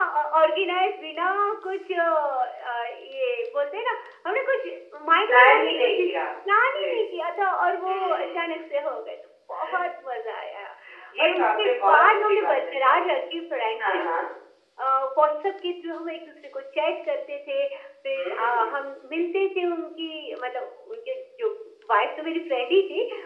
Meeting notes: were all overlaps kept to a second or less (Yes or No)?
No